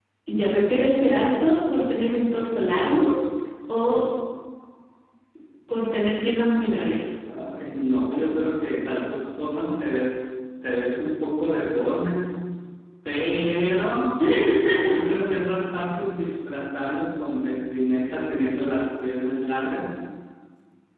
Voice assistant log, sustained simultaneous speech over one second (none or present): none